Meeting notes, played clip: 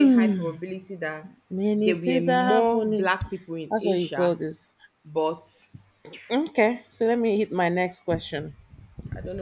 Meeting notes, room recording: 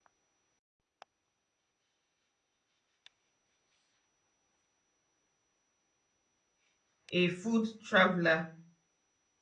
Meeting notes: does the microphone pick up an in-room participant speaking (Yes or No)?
Yes